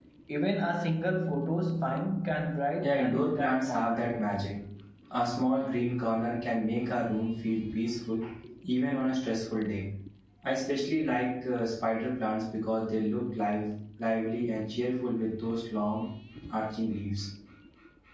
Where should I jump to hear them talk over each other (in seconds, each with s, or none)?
2.8 s